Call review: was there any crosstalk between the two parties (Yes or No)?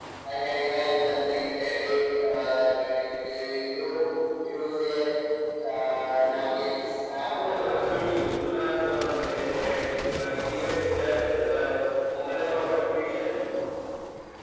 No